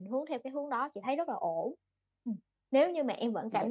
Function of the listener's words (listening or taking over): listening